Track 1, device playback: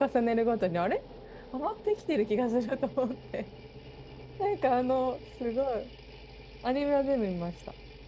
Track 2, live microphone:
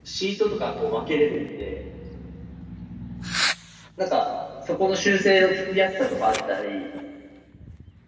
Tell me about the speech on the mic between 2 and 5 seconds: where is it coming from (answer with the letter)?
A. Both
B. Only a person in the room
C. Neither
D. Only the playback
B